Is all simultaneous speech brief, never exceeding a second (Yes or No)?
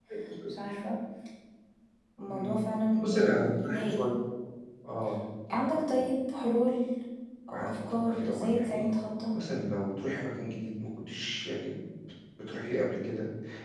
No